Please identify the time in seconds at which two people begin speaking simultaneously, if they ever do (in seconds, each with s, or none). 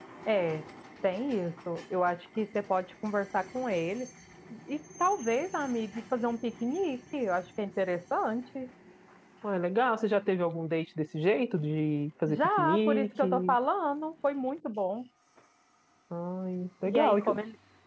12.3 s